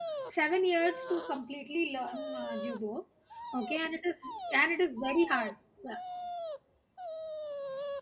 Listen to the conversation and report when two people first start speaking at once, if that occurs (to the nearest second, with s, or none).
none